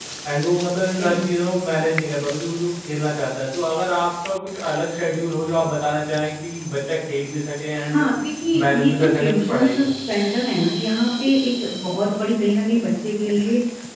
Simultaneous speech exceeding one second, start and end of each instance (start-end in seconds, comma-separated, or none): 8.7-9.9